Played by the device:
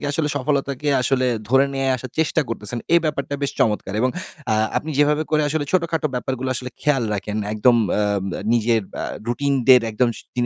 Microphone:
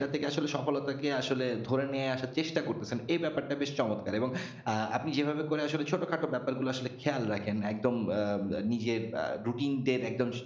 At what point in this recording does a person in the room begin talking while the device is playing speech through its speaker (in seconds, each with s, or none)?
none